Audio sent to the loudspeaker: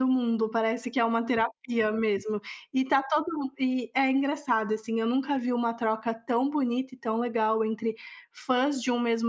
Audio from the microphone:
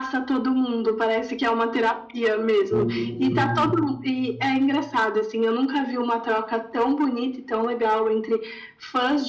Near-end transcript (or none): Hum.